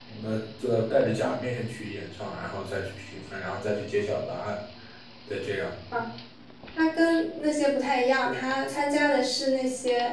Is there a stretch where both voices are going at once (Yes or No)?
No